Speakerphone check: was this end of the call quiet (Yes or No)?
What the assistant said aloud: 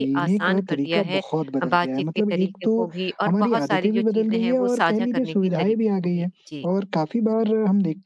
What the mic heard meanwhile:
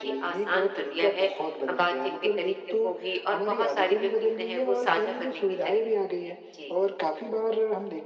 Yes